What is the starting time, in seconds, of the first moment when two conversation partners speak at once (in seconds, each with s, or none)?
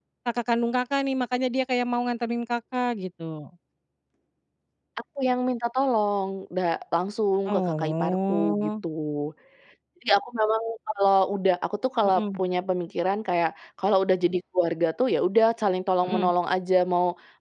7.5 s